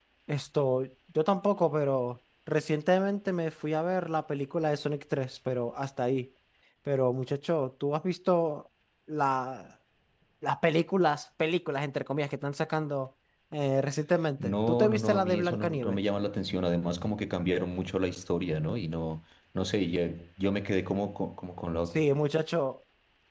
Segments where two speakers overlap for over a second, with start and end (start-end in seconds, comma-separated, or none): 14.4-16.0